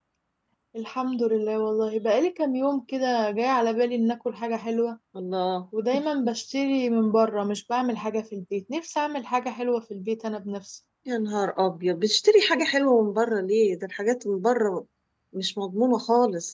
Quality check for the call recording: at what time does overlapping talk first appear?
none

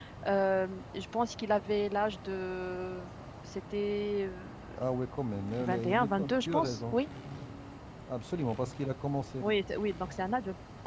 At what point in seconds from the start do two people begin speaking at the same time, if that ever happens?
6 s

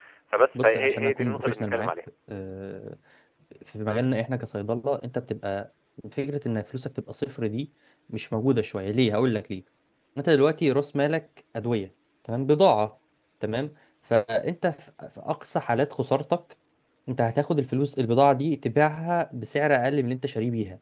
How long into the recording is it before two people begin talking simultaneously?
1 s

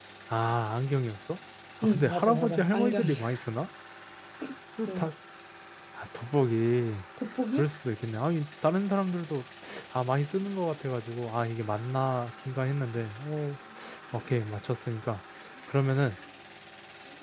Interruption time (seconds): 2 s

